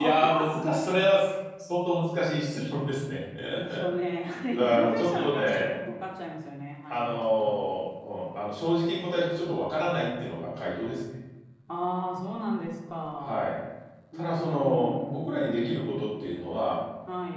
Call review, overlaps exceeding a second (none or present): present